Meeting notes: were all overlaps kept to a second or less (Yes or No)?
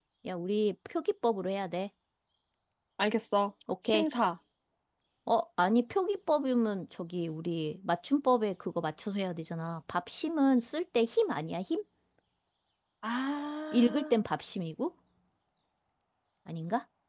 Yes